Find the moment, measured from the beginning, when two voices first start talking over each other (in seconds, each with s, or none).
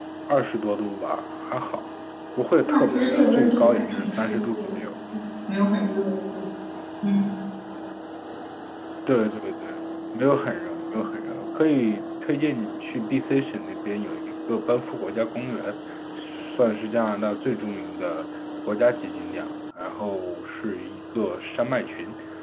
2.6 s